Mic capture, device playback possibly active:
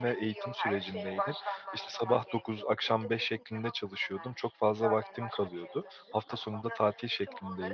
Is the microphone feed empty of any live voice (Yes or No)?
No